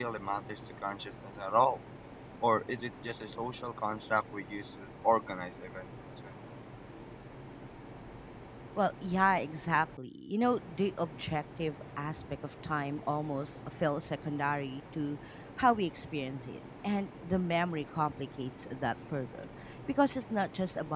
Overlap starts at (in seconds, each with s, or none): none